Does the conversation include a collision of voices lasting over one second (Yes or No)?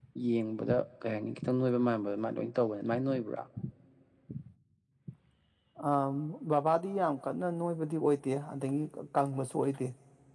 No